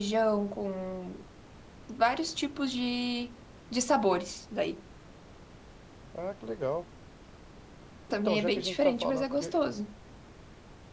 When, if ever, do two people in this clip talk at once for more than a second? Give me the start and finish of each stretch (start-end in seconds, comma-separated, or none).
8.1-9.5